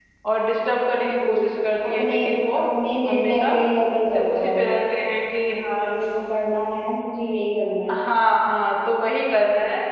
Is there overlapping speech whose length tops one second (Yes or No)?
No